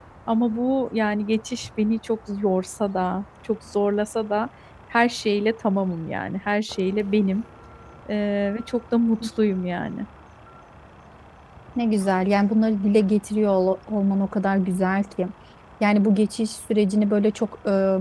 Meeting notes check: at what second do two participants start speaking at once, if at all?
none

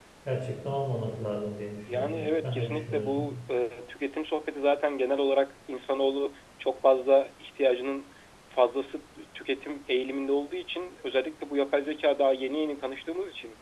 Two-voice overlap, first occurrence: 1.9 s

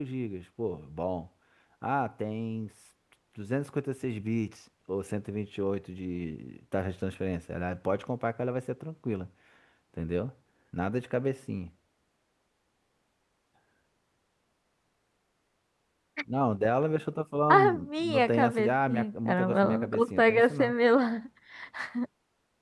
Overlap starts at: 17.5 s

